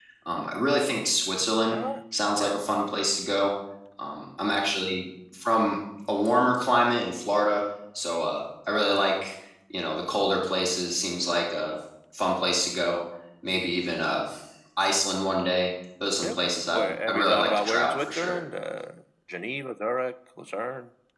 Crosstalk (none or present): present